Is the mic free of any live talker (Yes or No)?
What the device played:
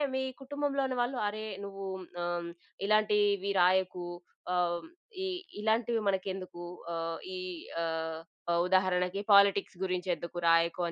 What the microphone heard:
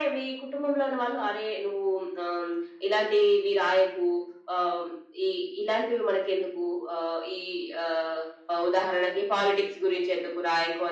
Yes